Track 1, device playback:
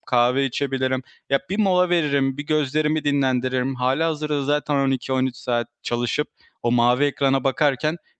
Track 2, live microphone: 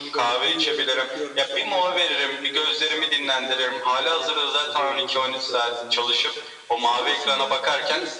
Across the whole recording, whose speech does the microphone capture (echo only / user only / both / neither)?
both